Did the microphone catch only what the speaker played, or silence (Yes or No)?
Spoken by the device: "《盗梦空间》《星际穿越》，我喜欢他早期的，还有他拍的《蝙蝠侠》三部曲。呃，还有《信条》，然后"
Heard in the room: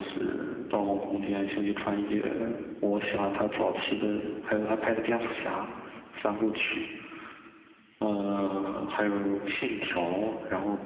Yes